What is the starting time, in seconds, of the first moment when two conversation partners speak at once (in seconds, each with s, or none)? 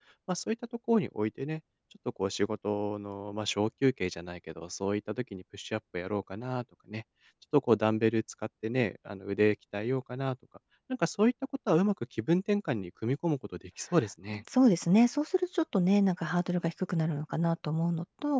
none